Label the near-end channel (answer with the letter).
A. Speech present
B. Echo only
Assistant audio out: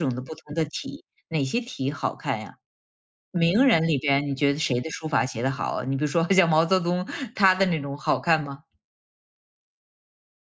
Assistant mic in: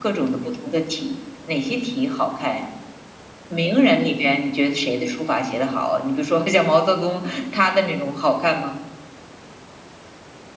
B